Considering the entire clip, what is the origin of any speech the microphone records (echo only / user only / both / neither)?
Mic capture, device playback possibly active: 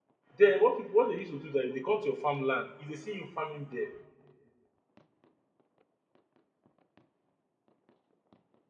user only